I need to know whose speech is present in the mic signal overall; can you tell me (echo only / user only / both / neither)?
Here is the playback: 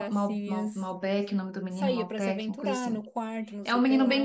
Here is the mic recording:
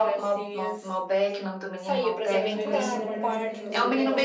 both